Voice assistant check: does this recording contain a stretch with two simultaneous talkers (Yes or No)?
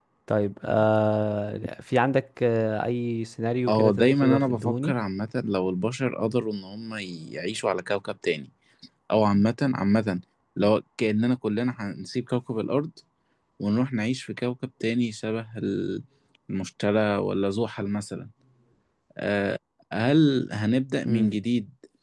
Yes